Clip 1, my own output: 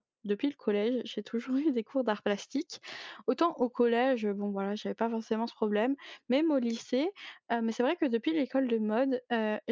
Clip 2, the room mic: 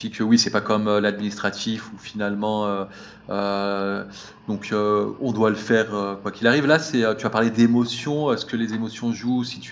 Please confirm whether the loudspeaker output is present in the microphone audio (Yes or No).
No